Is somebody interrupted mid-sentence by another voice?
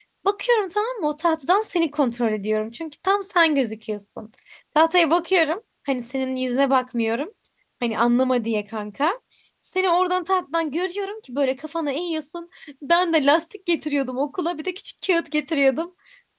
No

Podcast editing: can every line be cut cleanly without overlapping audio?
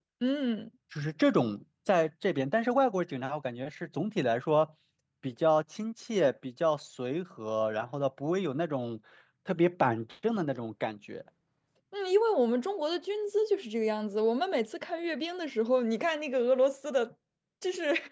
Yes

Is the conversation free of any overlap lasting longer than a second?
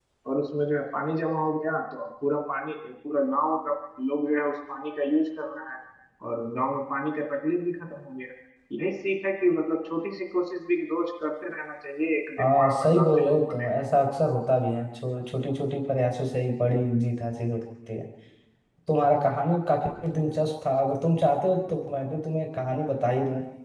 No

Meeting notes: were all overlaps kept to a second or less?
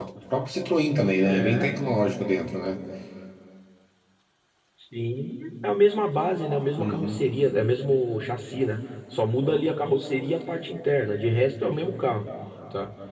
Yes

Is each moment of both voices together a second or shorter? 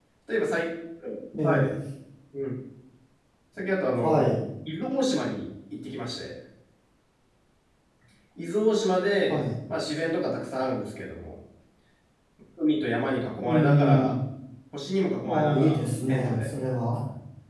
No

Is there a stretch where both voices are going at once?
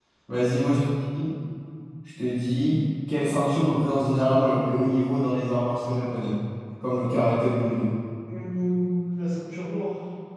No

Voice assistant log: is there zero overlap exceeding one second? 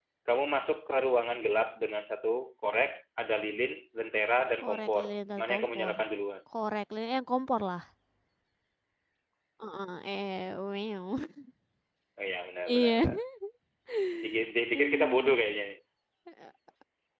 No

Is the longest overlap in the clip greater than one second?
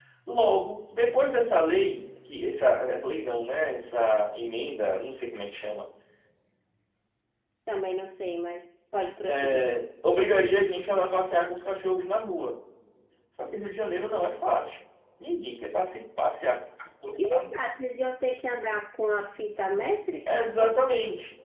No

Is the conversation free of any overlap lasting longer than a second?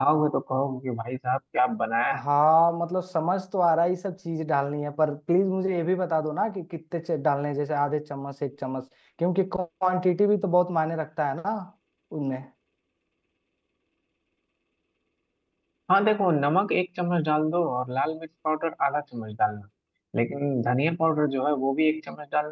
Yes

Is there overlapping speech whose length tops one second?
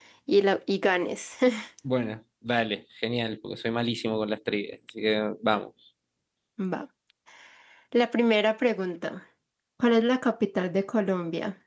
No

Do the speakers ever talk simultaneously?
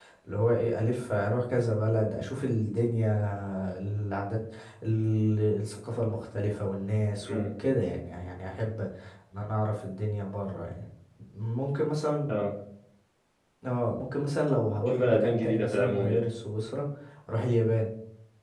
Yes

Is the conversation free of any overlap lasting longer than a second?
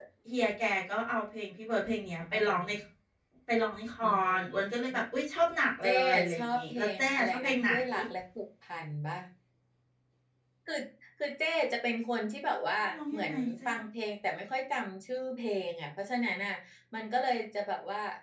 No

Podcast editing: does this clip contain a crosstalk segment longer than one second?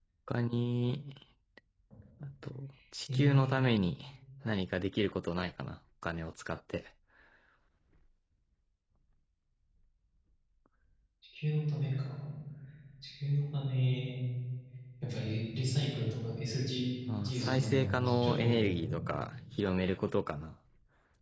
Yes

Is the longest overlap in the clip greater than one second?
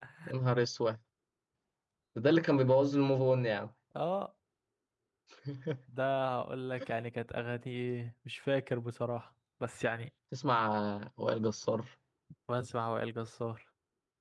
No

